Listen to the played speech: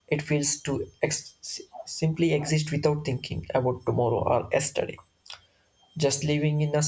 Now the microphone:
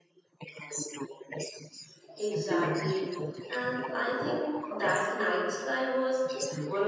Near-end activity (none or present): present